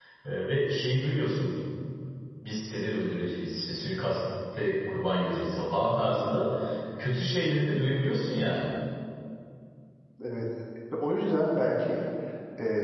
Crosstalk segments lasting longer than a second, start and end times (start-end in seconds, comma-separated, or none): none